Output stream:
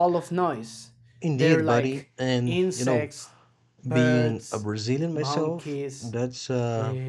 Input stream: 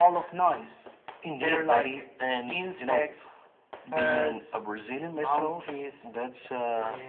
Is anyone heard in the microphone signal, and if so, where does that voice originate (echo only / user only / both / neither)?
echo only